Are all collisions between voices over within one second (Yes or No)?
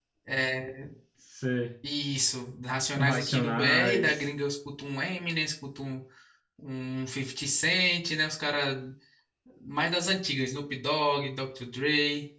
No